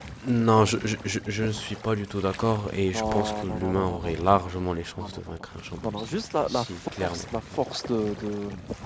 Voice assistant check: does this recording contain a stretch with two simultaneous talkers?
Yes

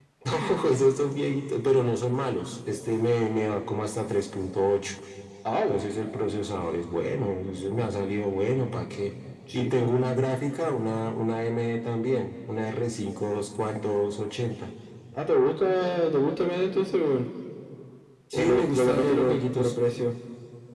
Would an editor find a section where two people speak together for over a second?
Yes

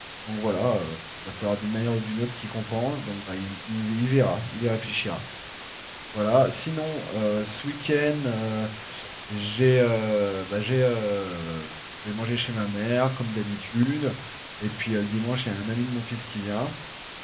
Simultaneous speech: No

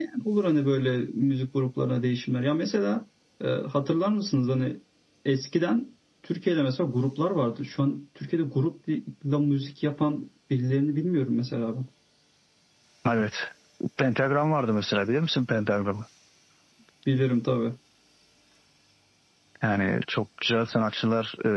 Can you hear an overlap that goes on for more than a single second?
No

